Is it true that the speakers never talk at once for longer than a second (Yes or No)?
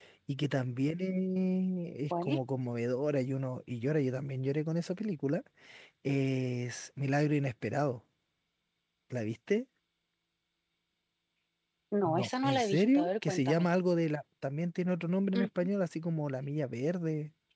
No